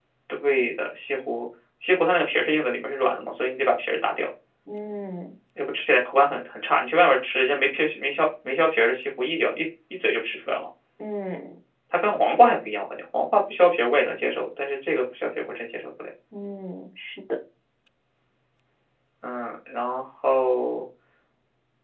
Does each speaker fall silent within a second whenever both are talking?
Yes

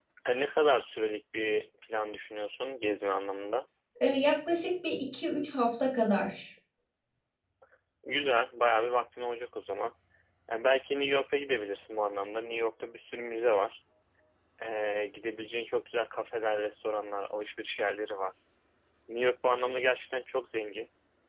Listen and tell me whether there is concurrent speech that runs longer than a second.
No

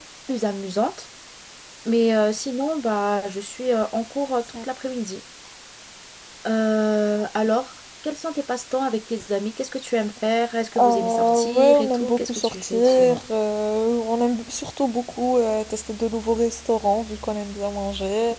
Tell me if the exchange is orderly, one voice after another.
No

